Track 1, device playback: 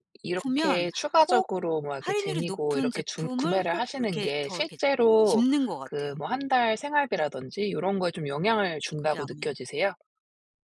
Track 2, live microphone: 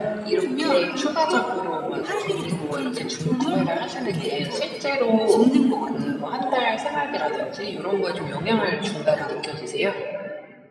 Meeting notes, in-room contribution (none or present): none